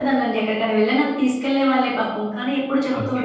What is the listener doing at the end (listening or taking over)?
listening